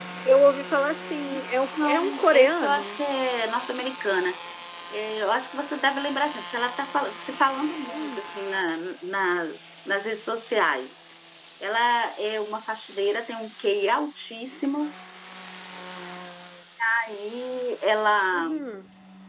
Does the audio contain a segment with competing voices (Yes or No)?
Yes